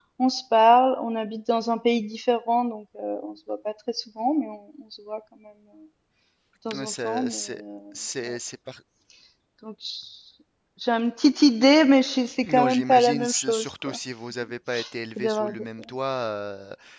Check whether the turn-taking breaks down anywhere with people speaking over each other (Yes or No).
Yes